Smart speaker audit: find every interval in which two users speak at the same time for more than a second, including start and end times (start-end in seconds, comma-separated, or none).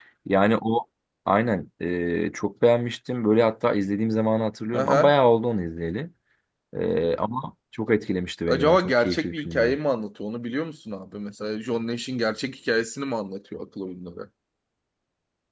8.5-9.8